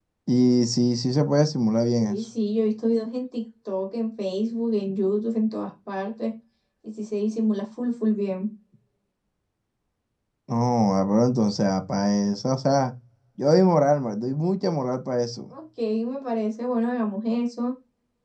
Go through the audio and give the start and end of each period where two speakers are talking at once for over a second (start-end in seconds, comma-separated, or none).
none